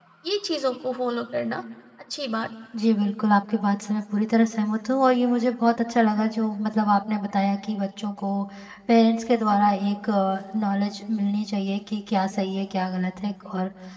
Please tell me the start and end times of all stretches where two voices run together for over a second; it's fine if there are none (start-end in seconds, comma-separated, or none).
none